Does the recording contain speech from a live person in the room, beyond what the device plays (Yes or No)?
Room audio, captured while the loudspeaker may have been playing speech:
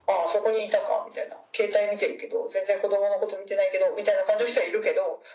No